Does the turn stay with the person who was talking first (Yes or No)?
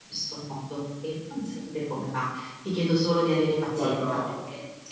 Yes